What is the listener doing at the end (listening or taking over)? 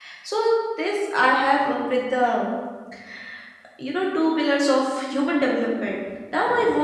listening